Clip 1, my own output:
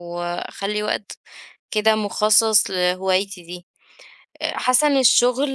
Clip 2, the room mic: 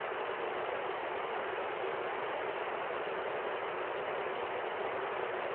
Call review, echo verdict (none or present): none